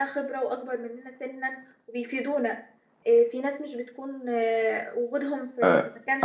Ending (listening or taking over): taking over